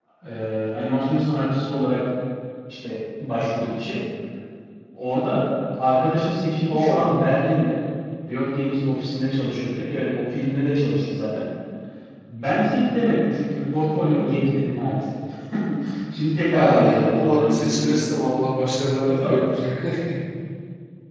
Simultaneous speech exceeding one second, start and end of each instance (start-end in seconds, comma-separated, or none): 16.5-18.0